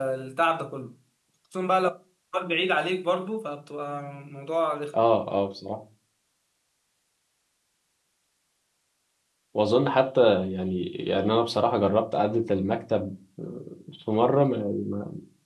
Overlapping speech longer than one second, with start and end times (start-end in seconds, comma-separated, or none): none